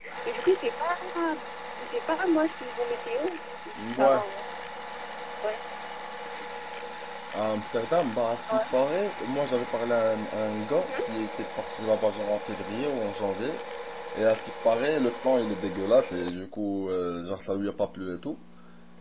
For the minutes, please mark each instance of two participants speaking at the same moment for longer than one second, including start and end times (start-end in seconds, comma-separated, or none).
none